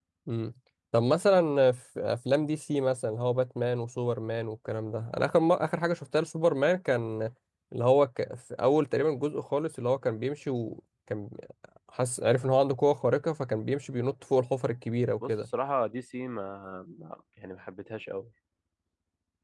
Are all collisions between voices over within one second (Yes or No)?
Yes